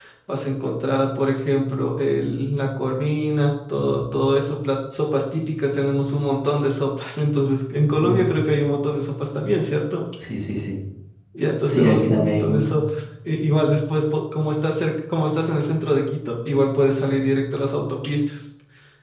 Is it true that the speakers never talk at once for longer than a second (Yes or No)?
No